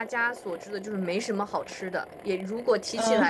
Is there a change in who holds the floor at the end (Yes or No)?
No